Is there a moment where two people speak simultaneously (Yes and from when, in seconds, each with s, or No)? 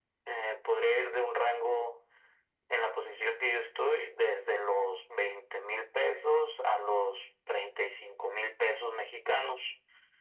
No